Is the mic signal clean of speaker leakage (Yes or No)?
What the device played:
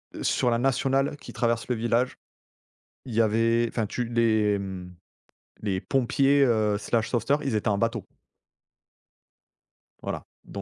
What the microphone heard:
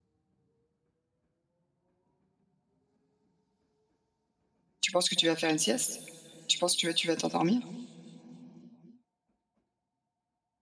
Yes